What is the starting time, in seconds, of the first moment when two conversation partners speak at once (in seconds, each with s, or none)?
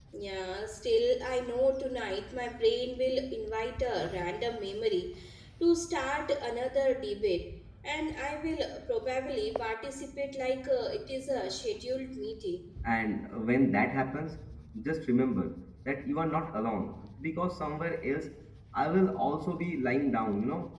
none